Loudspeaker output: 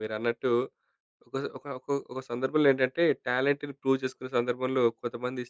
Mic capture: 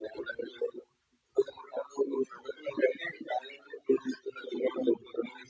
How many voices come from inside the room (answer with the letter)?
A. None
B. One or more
A